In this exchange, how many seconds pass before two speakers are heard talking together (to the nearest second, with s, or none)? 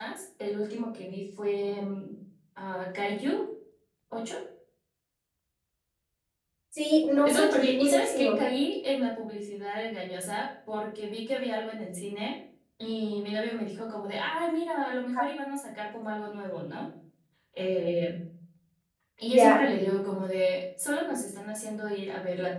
7 s